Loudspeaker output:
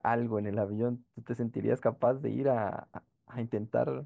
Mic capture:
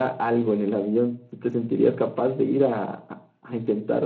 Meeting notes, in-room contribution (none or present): none